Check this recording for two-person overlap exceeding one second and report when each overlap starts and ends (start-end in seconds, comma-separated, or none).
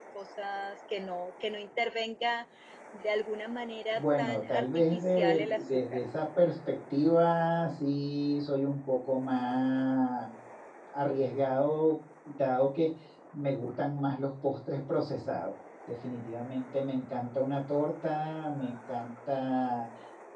3.9-6.0